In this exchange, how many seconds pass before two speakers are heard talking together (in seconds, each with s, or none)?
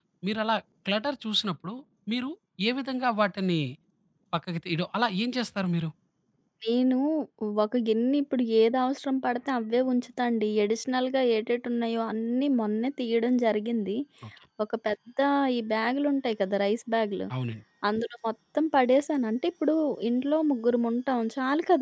none